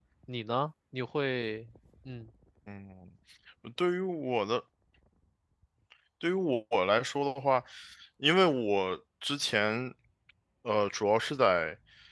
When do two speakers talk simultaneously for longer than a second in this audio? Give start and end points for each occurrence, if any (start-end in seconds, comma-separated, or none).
none